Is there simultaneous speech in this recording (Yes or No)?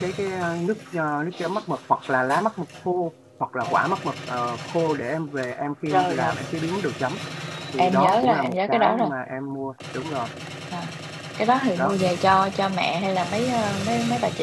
Yes